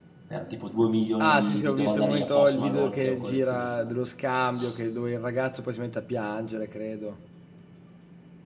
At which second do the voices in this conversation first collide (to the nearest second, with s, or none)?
1 s